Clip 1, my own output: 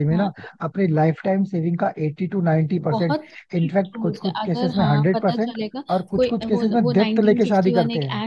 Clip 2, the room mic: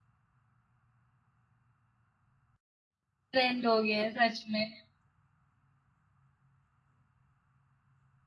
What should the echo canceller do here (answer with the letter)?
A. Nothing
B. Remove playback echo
A